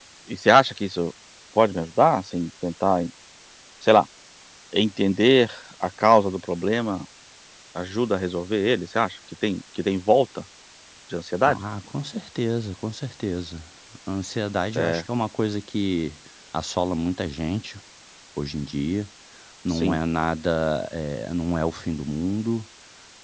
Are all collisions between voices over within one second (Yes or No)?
Yes